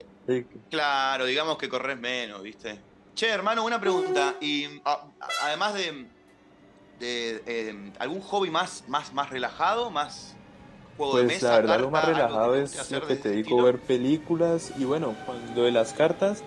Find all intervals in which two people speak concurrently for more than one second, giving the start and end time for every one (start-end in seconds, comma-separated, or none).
11.1-13.7